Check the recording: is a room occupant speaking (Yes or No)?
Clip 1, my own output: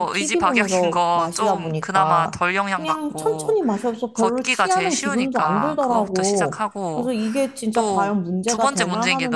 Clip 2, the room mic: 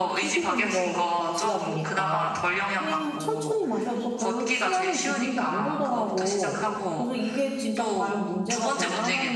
No